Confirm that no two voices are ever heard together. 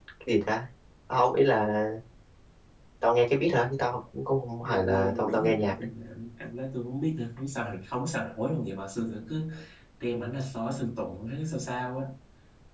No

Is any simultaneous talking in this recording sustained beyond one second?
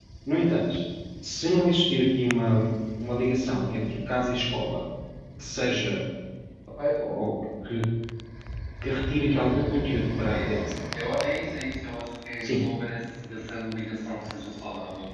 Yes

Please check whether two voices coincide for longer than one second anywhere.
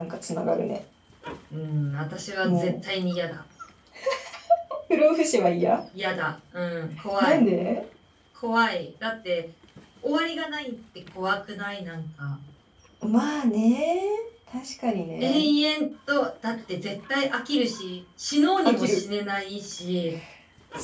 No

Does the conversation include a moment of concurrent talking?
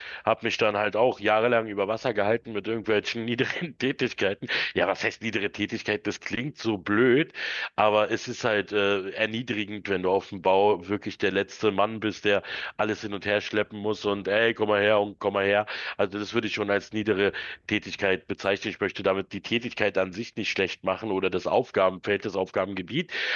No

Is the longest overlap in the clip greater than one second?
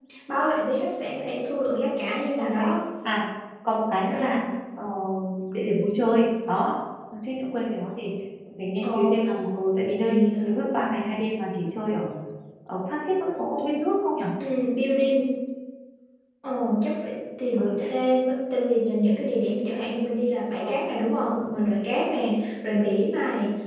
No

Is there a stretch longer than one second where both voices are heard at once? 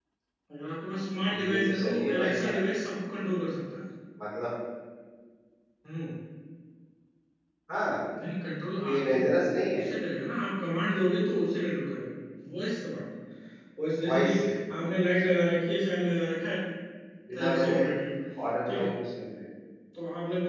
Yes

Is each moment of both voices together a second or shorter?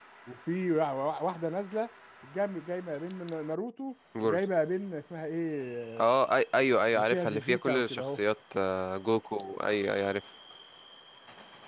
No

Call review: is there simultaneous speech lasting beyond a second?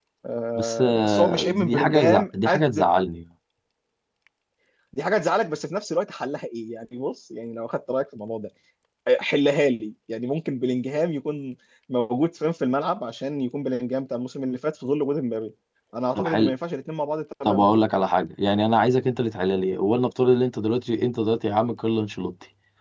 Yes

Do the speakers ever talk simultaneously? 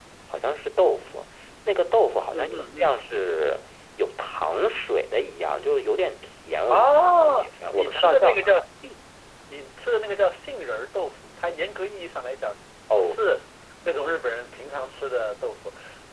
Yes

